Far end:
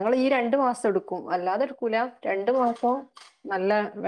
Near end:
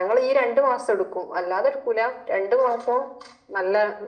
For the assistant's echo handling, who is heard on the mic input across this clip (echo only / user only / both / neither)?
echo only